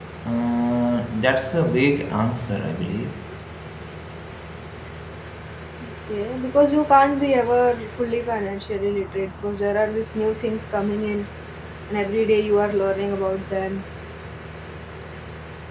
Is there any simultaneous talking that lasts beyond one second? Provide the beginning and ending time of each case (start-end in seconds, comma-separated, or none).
none